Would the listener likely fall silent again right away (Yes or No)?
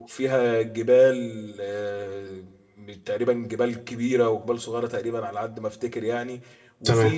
Yes